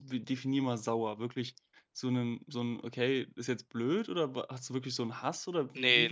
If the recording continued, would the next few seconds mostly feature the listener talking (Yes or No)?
Yes